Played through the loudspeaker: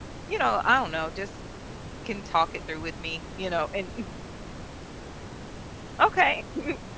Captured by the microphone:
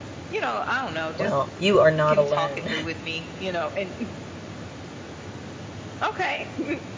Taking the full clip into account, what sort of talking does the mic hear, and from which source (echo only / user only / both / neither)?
both